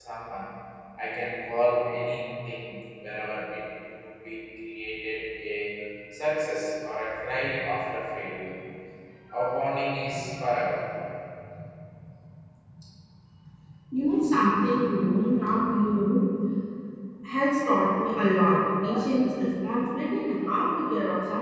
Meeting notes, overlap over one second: none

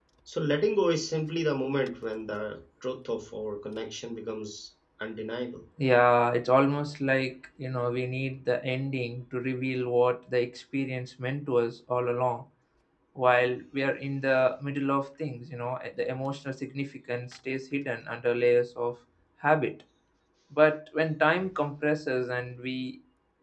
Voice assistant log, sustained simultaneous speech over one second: none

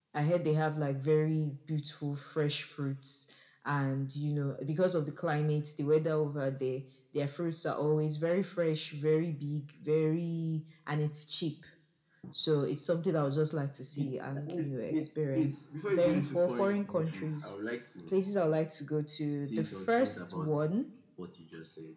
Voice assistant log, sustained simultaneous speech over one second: present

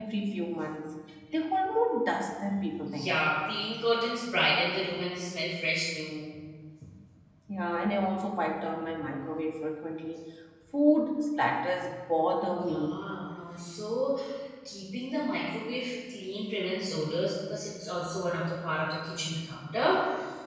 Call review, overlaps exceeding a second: none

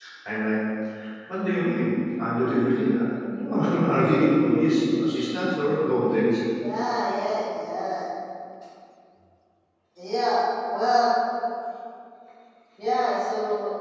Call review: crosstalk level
none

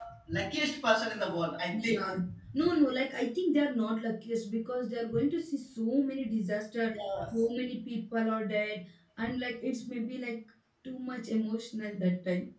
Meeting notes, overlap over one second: none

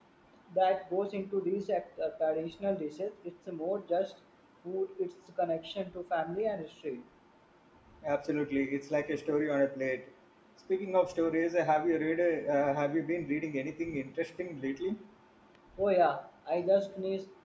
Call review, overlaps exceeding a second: none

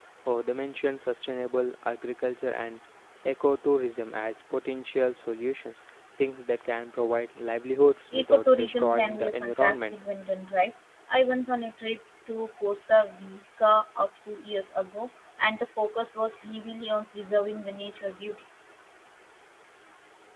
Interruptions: present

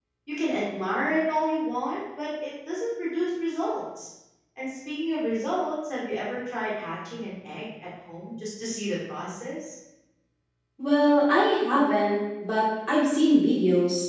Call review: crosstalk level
none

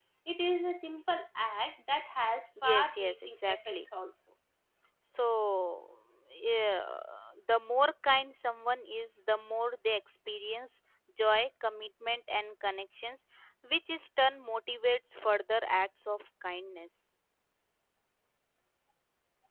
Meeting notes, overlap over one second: present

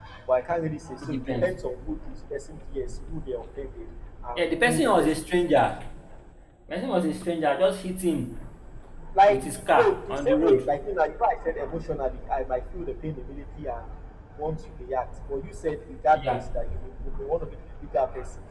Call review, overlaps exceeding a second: present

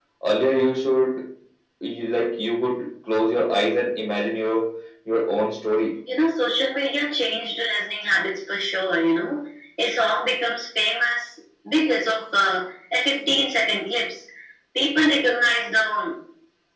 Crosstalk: none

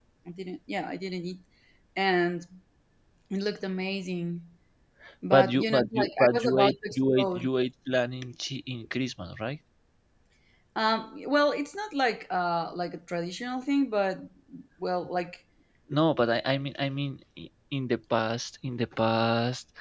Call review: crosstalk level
present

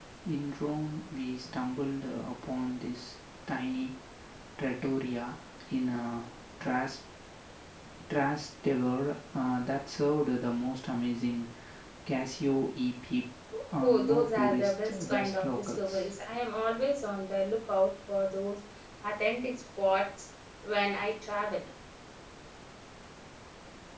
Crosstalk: present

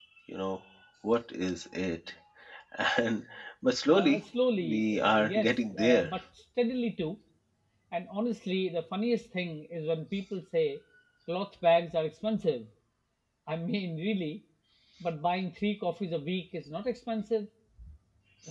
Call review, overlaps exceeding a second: present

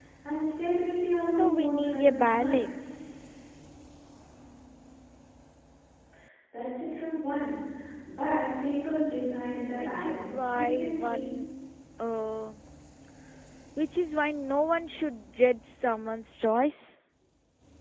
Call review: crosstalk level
present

